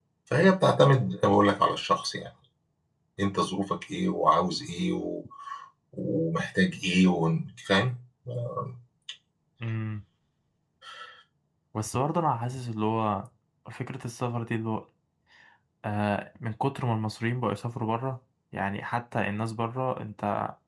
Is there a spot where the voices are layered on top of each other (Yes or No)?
No